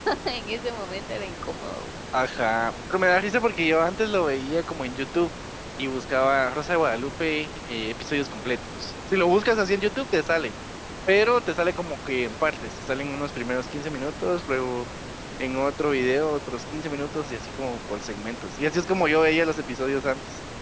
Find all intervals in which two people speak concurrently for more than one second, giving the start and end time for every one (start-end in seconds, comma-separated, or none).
none